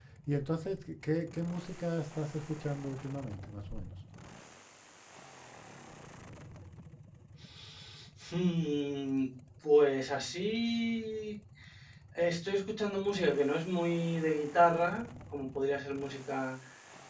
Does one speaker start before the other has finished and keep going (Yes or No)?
No